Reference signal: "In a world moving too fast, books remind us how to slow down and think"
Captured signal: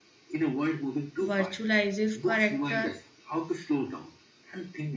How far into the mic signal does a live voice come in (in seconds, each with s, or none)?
1.2 s